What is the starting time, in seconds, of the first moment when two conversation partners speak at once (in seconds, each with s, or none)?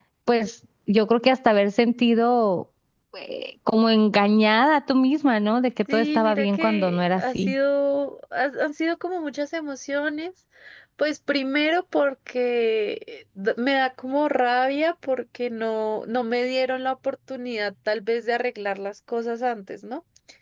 5.9 s